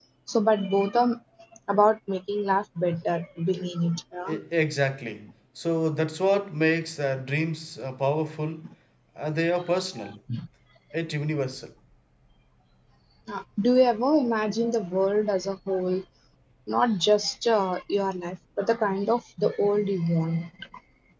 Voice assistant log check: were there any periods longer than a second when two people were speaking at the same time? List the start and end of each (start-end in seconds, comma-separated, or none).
none